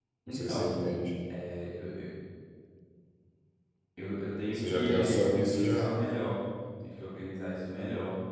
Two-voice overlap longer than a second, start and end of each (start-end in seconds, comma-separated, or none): 4.5-5.9